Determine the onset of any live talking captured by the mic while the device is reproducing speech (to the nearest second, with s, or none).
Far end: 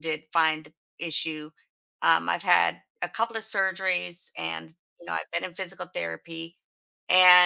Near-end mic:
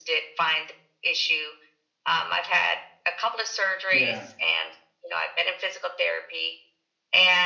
4 s